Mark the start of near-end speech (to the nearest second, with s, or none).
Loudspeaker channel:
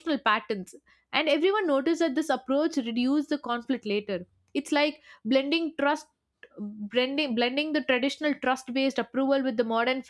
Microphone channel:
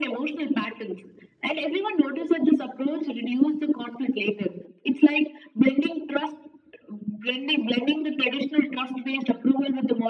none